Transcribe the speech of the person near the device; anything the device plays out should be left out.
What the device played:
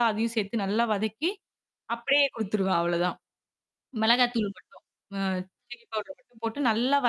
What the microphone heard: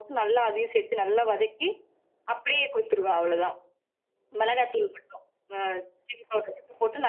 none

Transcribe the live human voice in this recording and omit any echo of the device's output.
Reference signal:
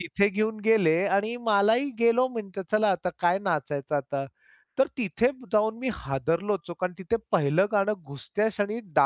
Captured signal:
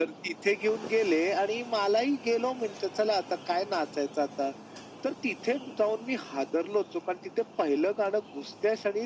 none

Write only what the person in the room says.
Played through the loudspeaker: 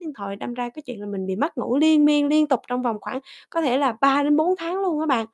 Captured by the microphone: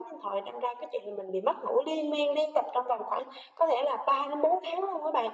none

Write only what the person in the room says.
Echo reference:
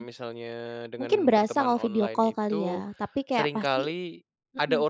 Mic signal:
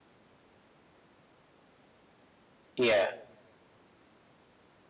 Iya.

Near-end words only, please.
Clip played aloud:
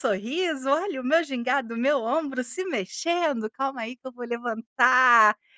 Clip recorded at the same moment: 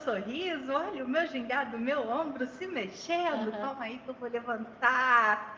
Aham.

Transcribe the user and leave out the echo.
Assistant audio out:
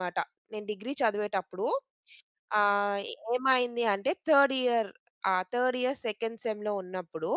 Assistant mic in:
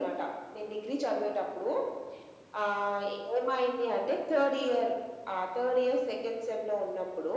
none

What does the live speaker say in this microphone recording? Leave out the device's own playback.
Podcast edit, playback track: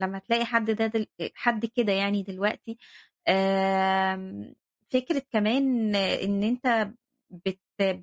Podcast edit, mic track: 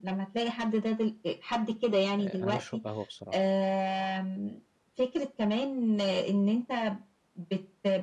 أنا باشرب قهوة بصراحة،

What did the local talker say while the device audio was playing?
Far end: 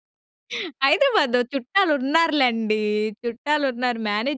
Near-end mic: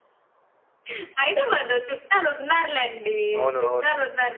అవును. అవును.

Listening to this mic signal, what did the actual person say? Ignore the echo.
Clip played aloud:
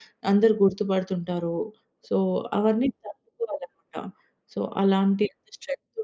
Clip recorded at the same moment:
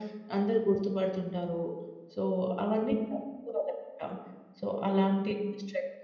none

